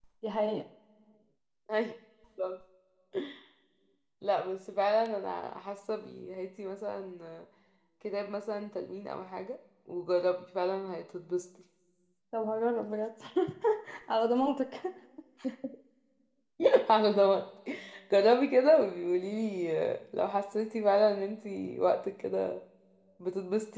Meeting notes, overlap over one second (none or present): none